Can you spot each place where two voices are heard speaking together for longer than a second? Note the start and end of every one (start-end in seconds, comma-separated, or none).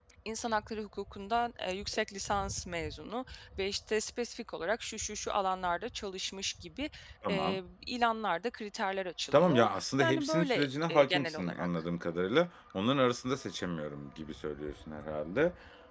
9.3-11.7